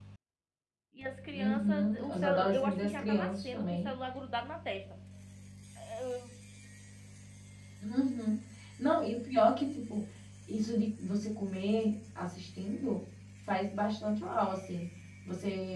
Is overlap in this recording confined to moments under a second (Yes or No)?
No